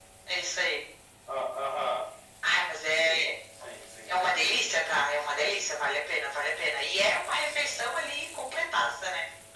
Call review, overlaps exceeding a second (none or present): none